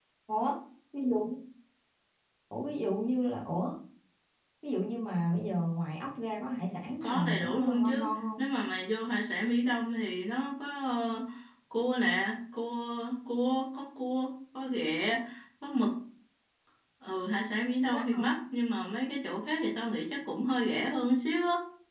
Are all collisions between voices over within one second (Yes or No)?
No